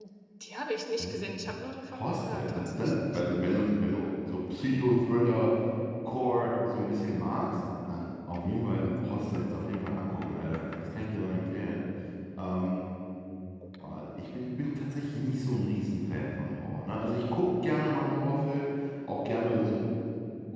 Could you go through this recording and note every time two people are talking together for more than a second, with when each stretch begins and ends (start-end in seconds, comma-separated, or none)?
1.9-3.2